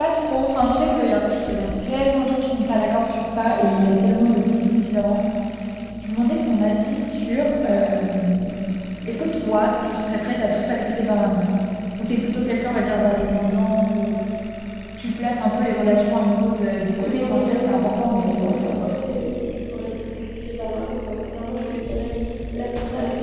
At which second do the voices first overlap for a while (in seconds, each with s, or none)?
17.0 s